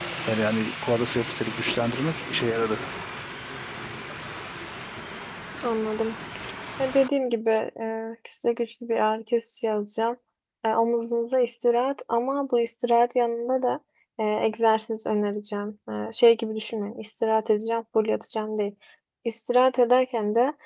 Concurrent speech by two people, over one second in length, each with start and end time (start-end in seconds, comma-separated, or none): none